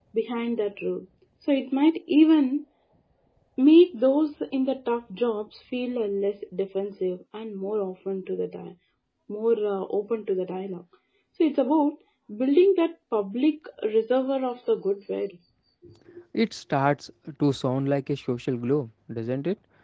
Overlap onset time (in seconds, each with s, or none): none